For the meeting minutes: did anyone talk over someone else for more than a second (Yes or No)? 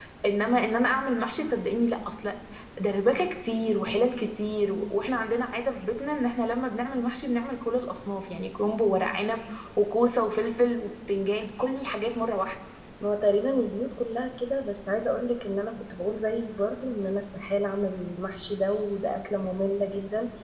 No